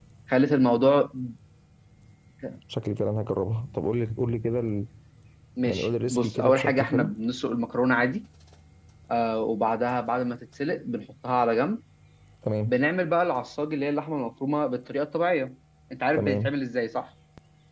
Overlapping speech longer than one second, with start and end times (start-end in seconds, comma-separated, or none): 5.7-7.1